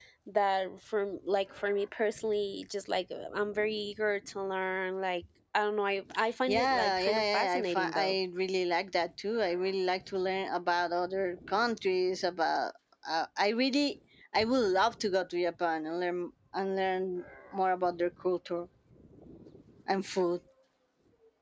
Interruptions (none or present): present